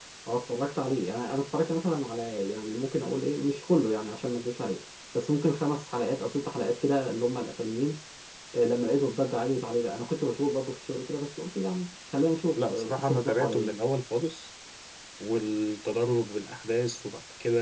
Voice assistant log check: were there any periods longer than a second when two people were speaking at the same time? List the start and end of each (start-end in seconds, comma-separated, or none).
12.6-13.8